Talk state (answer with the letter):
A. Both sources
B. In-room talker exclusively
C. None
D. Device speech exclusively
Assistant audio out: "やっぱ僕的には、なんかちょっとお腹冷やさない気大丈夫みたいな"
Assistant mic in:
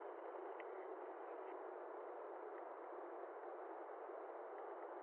C